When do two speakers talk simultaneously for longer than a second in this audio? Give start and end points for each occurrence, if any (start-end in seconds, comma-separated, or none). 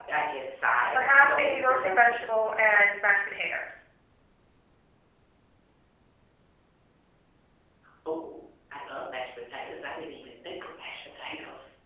0.9-2.2